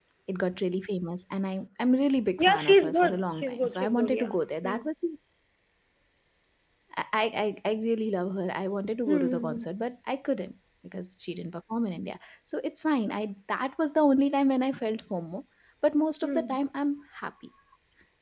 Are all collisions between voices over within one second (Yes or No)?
No